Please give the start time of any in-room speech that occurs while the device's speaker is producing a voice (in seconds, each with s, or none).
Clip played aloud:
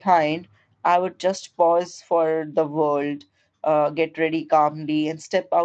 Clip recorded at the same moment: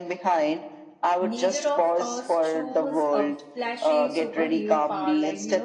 1.2 s